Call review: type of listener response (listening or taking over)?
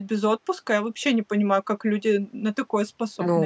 taking over